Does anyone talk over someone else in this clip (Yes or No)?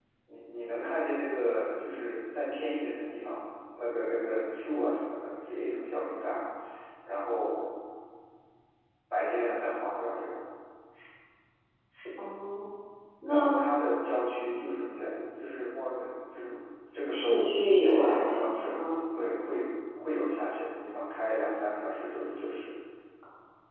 Yes